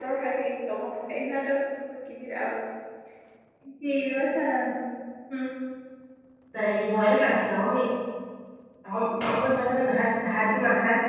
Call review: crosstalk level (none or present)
none